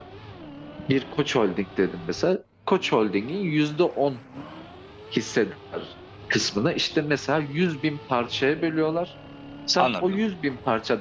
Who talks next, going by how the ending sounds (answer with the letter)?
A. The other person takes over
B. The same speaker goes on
B